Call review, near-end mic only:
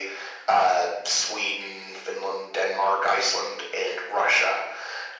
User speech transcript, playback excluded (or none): none